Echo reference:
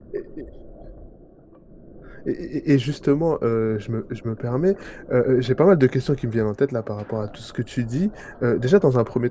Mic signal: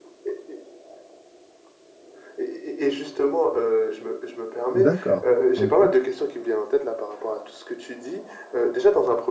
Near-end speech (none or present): present